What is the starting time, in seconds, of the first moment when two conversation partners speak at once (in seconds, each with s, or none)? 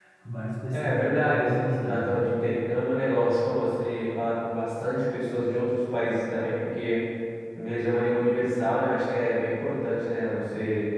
0.7 s